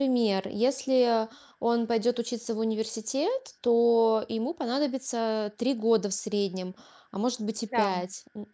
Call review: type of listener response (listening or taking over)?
listening